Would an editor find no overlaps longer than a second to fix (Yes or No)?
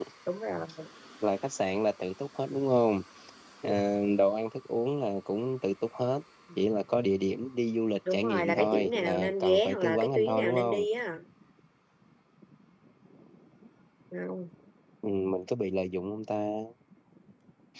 No